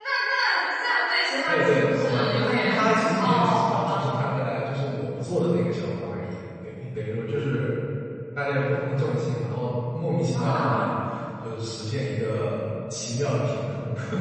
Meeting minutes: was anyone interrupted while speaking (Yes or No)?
Yes